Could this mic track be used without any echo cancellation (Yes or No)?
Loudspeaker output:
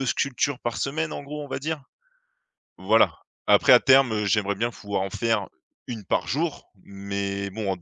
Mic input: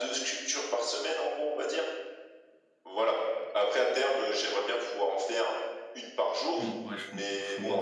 No